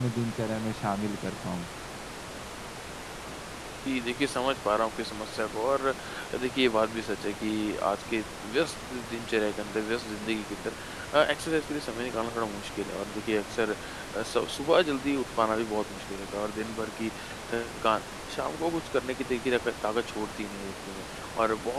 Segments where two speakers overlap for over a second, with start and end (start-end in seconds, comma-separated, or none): none